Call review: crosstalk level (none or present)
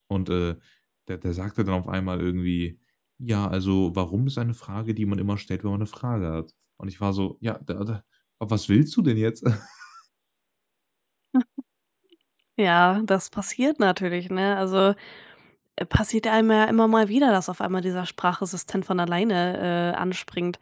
none